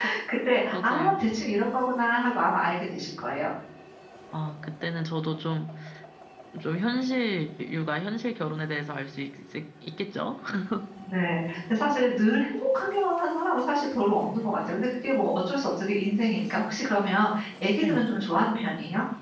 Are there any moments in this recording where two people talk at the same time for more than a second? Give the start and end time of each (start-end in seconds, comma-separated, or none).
none